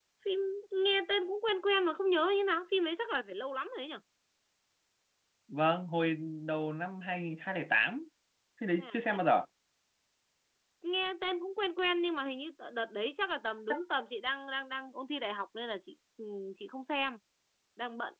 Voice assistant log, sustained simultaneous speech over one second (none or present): none